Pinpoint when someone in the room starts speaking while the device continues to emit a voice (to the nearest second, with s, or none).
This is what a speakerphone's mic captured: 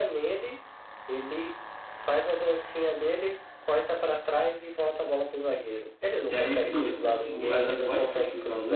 6 s